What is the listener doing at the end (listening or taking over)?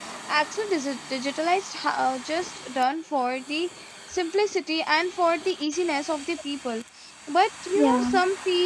listening